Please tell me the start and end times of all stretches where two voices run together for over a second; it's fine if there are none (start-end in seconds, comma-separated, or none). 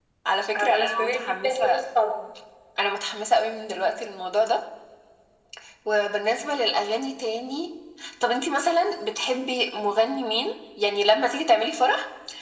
0.6-1.8